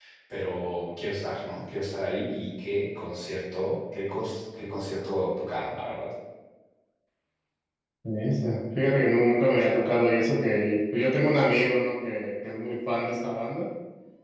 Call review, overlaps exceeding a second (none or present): none